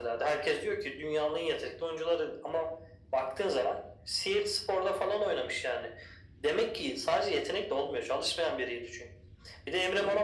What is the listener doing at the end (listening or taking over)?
listening